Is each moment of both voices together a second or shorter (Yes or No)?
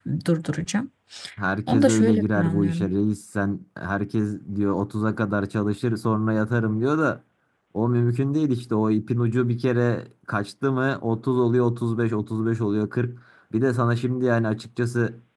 No